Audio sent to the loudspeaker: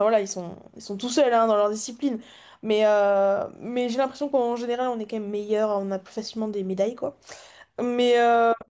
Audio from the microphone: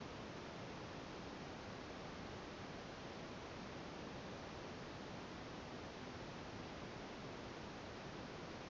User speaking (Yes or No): No